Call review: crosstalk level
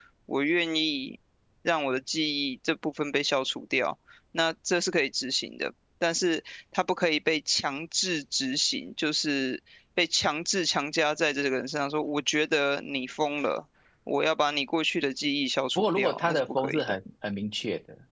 present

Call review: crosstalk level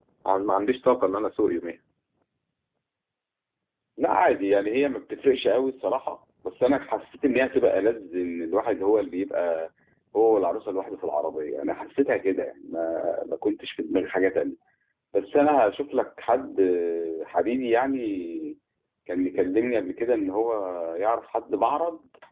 none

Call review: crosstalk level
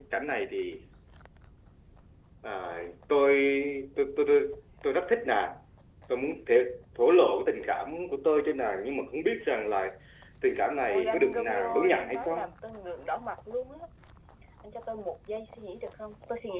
present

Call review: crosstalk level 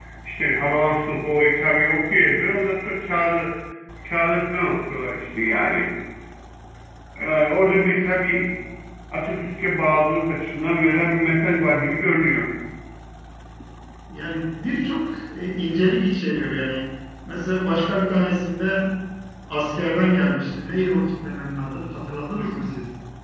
none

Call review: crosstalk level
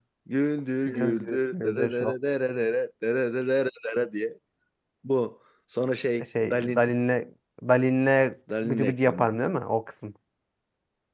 present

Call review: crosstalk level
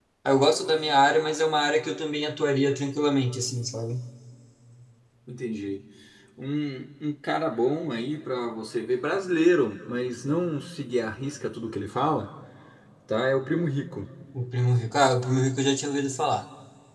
none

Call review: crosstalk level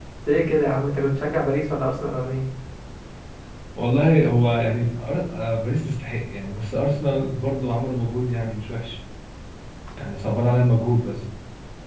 none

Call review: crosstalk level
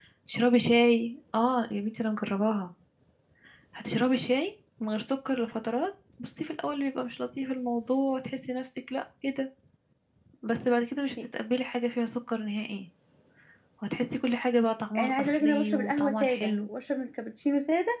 present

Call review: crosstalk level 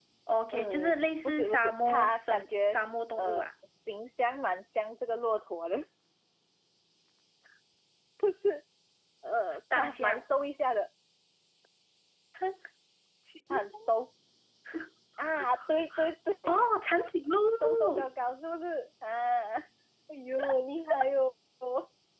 present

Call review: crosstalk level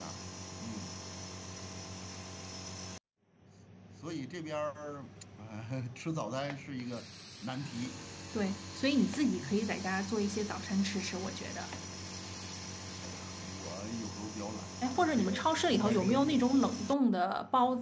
present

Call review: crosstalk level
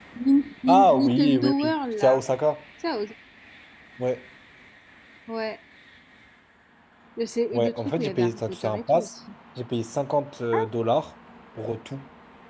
present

